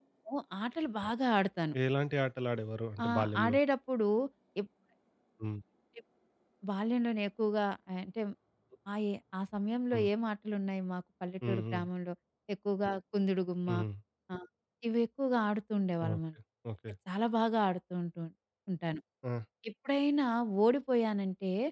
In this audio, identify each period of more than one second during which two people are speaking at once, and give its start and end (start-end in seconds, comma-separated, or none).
none